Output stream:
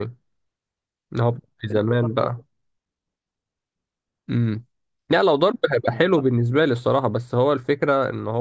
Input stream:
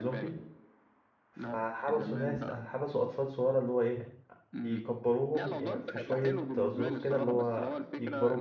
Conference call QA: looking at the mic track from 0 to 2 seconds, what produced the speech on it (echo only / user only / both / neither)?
both